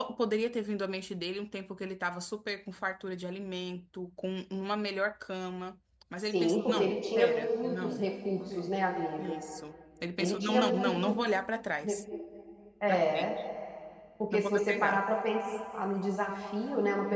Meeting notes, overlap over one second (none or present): present